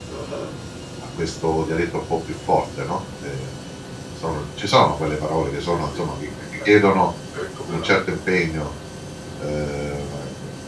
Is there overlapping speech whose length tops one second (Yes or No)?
No